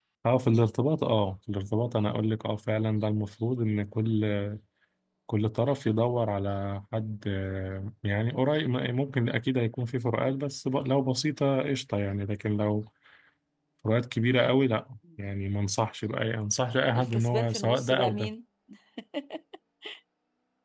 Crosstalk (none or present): present